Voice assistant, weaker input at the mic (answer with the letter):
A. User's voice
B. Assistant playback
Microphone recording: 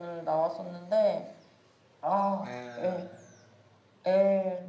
A